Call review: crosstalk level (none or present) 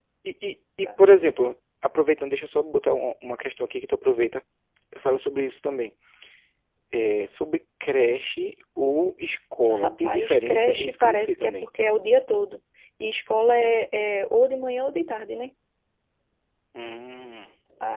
present